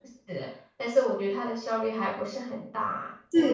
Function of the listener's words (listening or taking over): taking over